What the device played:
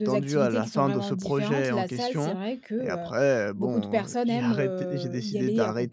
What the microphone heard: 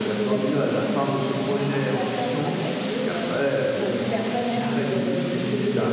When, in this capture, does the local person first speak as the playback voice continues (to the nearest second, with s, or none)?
none